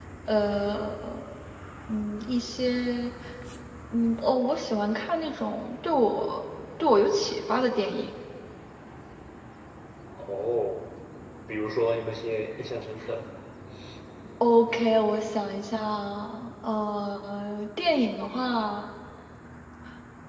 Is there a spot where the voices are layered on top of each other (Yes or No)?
No